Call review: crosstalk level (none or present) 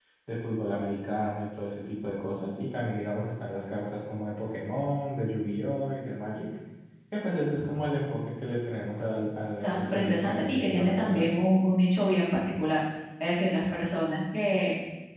present